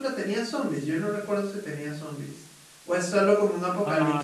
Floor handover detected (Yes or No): Yes